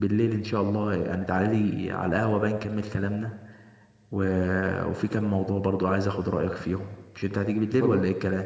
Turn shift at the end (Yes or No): Yes